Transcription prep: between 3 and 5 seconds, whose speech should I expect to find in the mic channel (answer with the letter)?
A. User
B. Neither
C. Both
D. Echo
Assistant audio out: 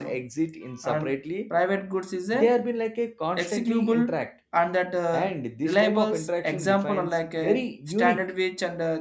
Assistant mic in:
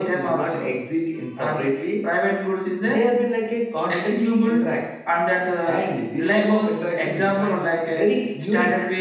D